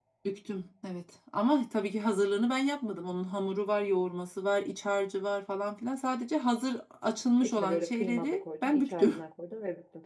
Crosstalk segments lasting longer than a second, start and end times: 7.4-9.1

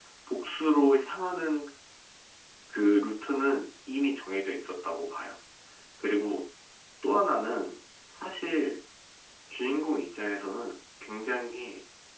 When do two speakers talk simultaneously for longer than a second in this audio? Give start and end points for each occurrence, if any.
none

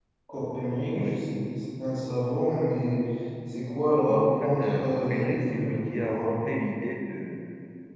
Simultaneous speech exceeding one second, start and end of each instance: 4.1-6.5

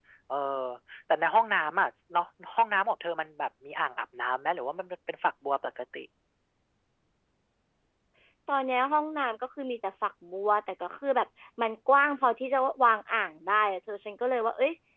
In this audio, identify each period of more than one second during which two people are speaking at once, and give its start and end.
none

